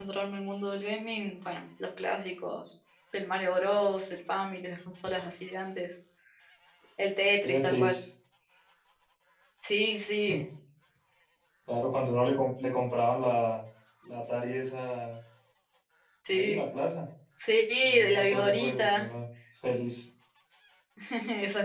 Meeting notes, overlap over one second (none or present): present